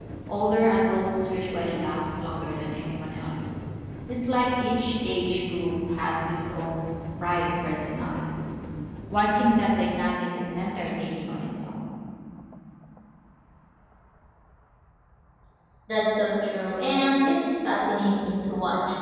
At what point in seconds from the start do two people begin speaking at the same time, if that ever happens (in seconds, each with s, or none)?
none